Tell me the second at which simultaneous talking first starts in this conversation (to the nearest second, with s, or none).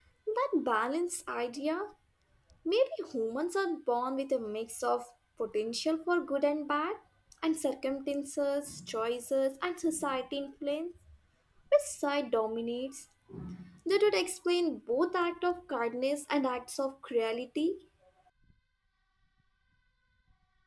none